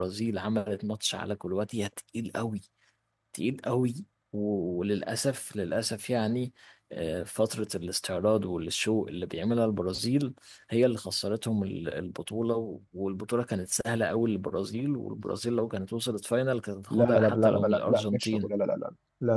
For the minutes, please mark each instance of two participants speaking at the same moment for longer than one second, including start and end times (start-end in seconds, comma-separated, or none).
16.9-18.5